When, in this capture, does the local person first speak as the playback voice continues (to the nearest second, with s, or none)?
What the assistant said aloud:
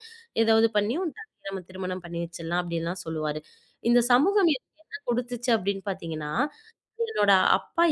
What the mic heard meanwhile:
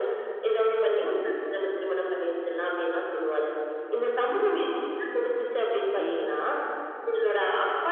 6 s